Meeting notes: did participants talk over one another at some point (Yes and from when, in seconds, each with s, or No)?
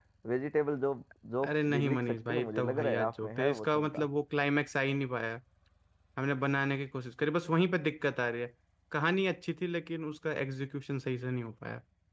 Yes, from 1.4 s